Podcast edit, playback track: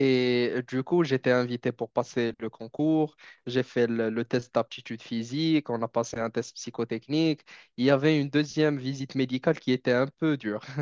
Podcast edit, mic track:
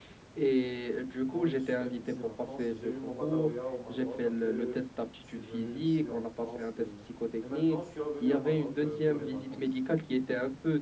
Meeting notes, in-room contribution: present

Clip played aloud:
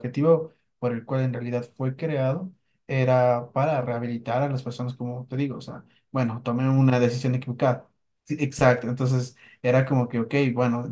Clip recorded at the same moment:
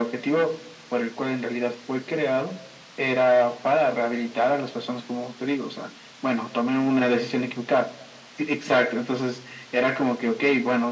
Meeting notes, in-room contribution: none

